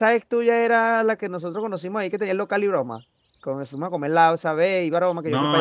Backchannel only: No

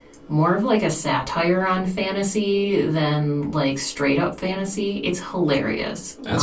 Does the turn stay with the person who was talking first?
No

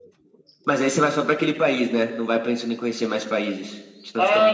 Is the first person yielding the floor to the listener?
Yes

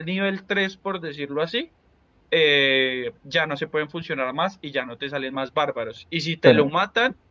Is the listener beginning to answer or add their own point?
No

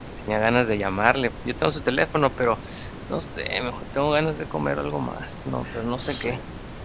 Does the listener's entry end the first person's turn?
Yes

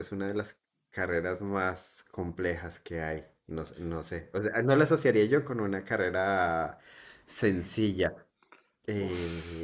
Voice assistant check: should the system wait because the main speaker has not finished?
No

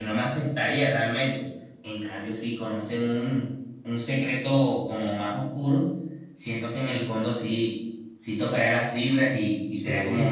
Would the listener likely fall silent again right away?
Yes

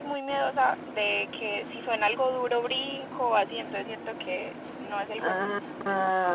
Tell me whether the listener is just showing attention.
No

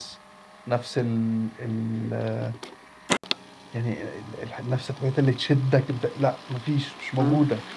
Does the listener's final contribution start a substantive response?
Yes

